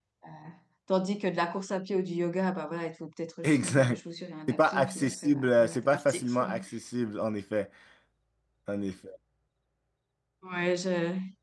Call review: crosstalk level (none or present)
present